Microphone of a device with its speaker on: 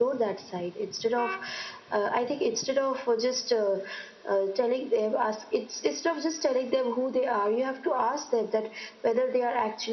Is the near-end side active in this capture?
No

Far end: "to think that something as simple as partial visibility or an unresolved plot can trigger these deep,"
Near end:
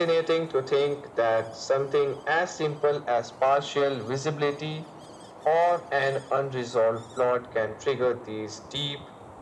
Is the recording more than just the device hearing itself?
No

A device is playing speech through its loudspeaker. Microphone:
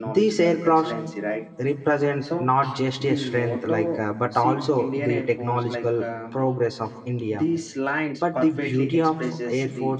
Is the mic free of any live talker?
No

